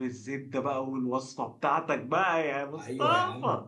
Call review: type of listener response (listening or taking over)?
taking over